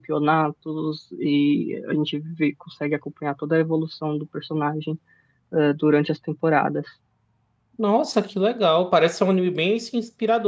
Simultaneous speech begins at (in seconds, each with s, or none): none